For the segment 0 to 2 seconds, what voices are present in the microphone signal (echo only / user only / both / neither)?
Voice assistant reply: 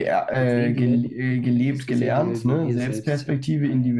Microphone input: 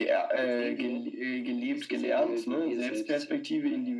echo only